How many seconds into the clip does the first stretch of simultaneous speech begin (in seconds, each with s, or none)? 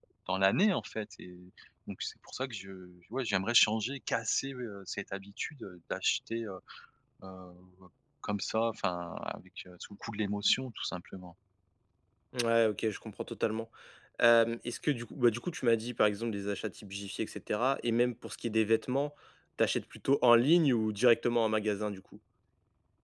none